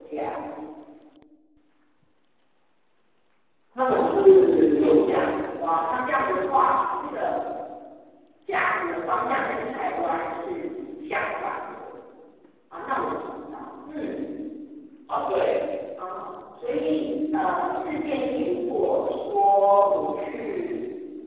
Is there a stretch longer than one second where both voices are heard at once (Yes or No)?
Yes